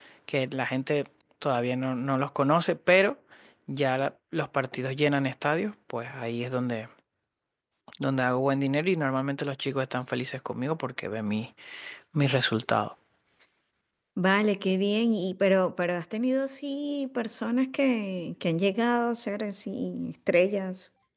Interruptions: none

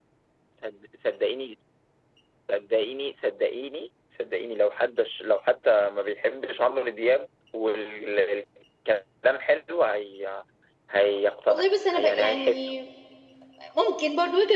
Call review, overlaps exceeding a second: present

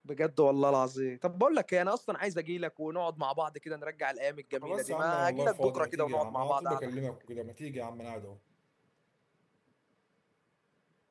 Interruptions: present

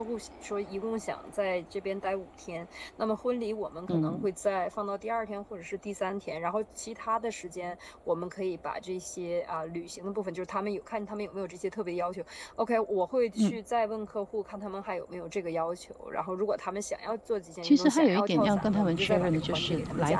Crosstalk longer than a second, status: present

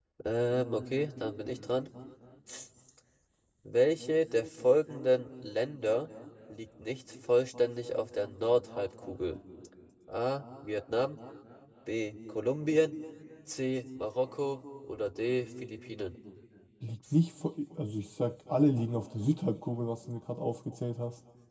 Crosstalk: none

